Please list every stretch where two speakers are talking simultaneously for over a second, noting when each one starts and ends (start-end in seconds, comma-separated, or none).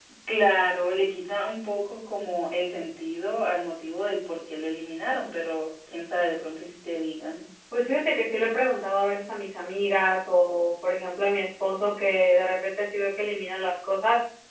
none